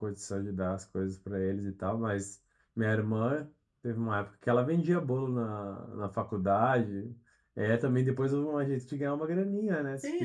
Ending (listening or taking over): taking over